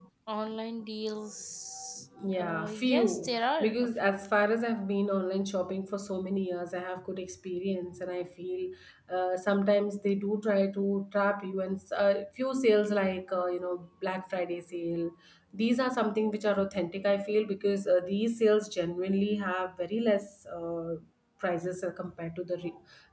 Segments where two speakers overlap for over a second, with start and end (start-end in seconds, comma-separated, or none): 2.4-4.3